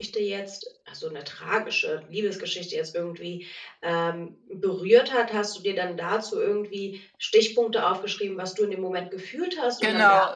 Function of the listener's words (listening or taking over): taking over